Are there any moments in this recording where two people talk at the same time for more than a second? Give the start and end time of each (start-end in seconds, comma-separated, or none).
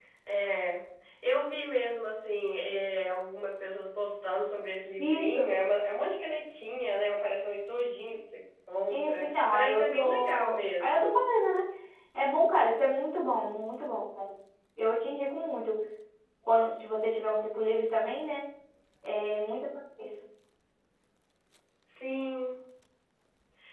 8.9-11.2